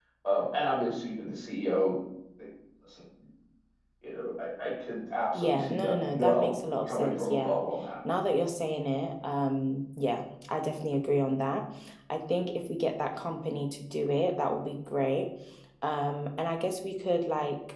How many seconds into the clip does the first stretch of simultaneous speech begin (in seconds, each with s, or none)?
5.3 s